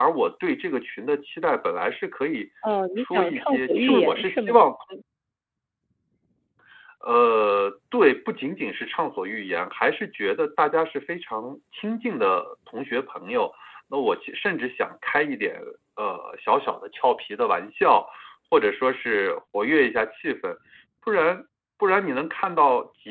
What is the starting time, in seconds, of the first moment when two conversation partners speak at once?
3.0 s

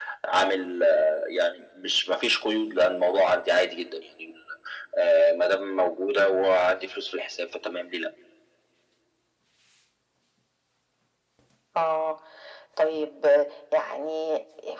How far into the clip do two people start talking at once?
none

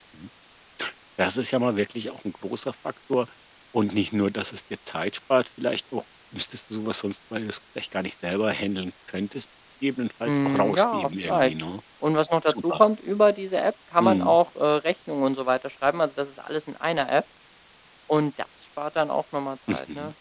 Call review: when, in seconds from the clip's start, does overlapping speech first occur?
10.2 s

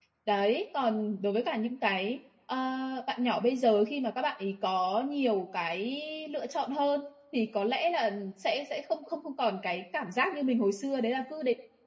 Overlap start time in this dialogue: none

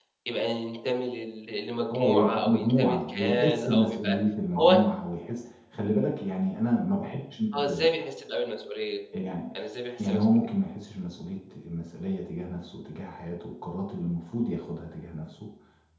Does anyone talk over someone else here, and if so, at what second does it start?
1.9 s

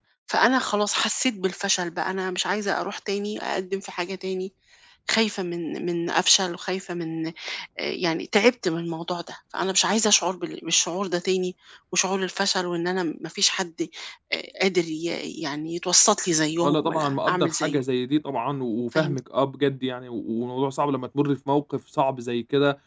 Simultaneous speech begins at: 16.6 s

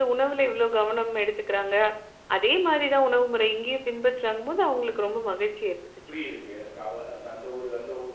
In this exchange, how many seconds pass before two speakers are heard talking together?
none

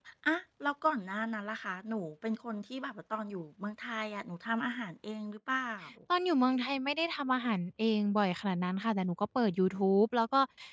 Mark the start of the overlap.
none

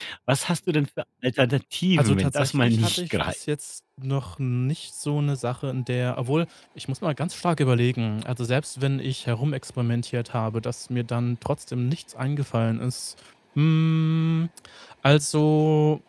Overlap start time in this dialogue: 2.0 s

